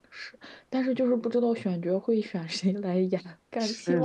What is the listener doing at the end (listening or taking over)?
listening